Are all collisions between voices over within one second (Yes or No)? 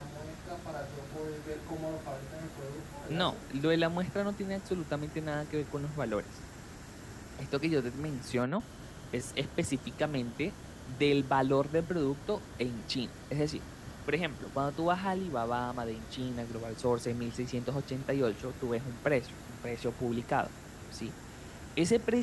Yes